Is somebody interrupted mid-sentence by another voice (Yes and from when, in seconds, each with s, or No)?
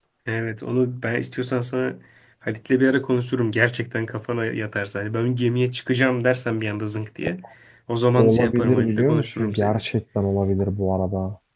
Yes, from 8.2 s